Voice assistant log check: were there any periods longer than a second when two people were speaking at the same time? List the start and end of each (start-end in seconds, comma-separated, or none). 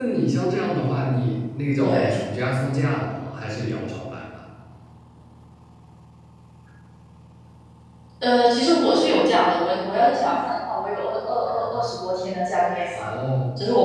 none